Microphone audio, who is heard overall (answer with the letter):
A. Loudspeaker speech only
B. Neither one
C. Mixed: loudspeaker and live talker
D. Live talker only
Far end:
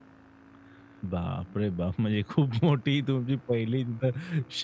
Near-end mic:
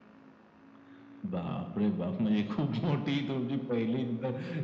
A